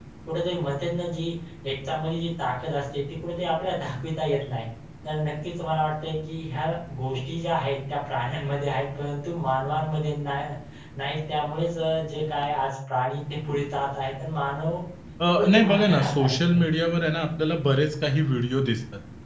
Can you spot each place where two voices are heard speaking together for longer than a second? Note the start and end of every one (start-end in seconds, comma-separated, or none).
15.3-16.6